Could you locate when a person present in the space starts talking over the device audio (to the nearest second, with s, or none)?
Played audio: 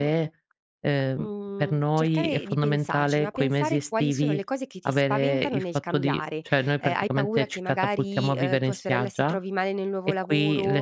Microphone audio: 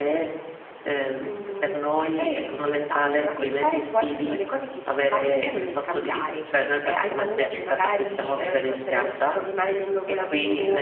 none